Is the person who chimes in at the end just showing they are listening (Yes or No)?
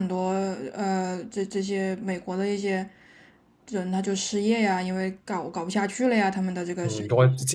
No